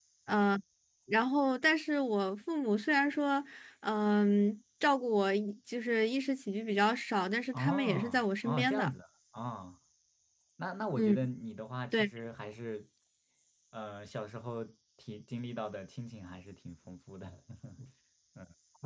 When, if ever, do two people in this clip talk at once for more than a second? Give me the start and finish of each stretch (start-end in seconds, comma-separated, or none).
7.5-8.9